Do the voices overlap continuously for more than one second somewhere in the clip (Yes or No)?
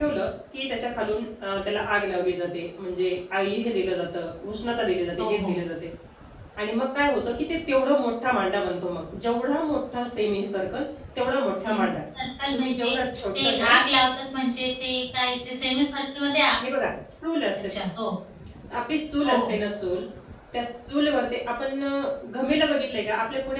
No